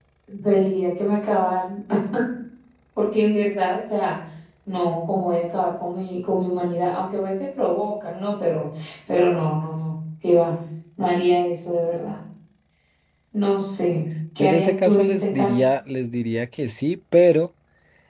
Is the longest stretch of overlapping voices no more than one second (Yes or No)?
No